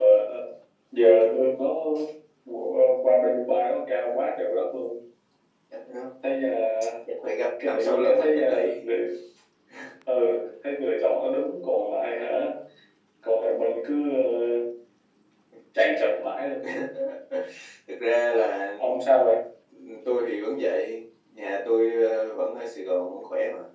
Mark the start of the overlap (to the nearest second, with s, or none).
8 s